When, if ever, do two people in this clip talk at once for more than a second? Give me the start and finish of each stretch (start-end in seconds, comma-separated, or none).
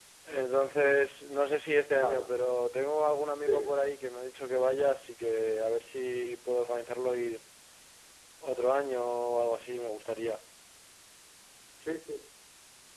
none